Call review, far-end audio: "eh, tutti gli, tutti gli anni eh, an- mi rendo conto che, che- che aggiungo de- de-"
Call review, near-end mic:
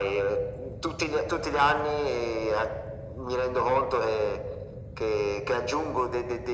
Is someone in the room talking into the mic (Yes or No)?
No